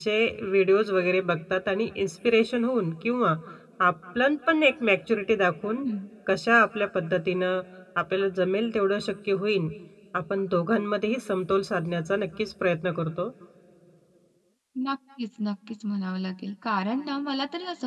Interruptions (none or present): none